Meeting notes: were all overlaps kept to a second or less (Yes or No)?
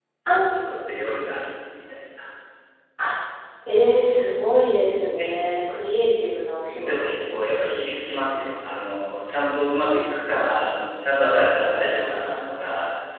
Yes